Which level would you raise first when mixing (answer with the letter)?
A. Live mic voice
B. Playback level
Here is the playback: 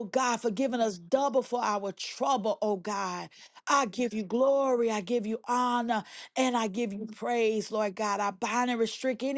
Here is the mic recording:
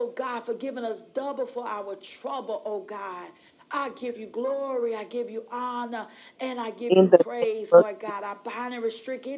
B